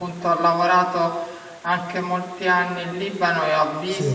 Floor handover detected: No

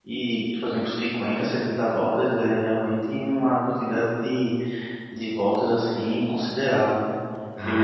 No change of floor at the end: No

